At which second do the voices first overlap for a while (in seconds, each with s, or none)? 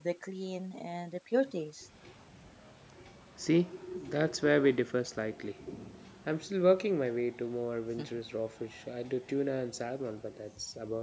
none